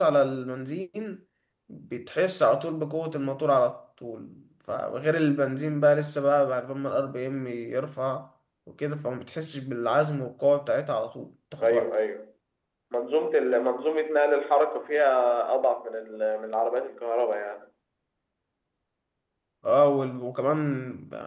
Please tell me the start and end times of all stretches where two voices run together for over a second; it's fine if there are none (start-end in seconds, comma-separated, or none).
none